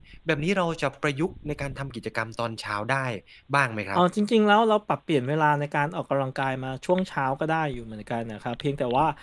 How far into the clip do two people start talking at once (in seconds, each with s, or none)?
none